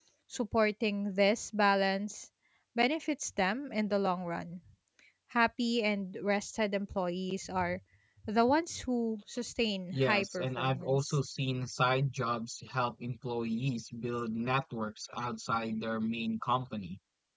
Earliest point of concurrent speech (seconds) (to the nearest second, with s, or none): 10 s